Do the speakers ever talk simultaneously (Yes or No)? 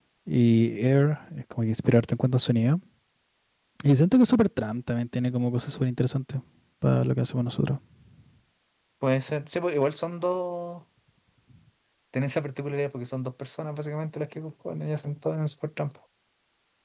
No